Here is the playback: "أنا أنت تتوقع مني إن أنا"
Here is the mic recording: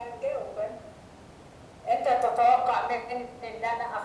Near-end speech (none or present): none